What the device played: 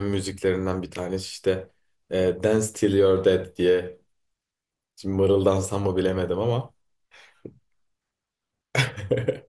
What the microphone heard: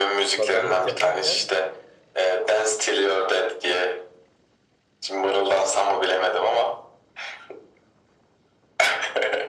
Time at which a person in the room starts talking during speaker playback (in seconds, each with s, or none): 0.3 s